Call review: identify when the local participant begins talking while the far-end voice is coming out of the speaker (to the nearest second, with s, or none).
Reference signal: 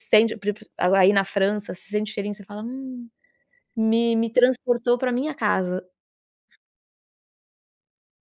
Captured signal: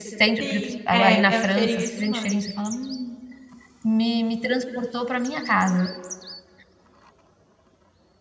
0 s